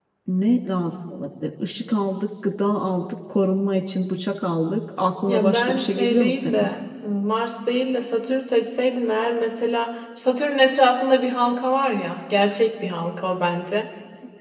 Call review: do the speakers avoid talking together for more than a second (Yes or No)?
No